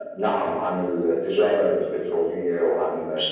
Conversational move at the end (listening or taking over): listening